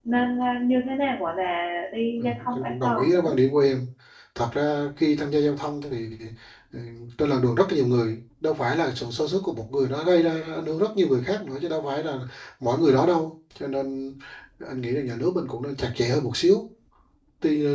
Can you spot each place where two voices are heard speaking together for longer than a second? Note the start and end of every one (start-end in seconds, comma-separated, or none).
2.1-3.4